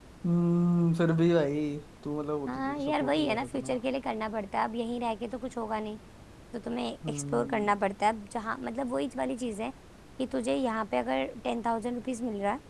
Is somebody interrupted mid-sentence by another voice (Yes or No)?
Yes